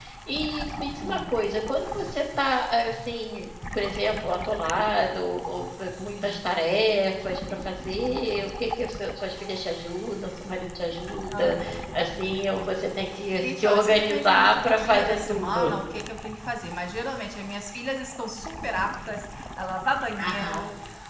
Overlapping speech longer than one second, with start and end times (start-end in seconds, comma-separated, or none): 13.4-15.8